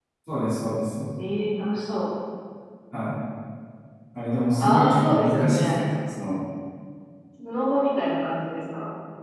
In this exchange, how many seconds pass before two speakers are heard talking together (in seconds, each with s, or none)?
4.6 s